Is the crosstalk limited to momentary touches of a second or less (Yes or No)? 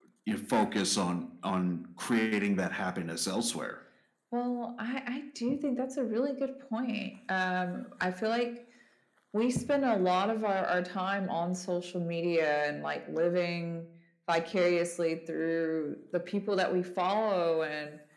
Yes